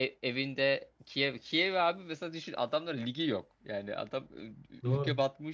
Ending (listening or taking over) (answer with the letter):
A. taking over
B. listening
B